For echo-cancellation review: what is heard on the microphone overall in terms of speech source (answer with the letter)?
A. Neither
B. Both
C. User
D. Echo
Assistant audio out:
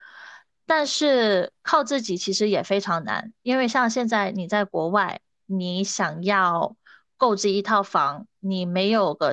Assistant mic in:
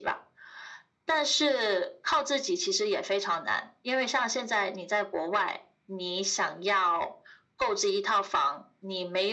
D